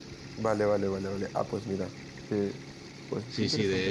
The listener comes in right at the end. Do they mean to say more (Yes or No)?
Yes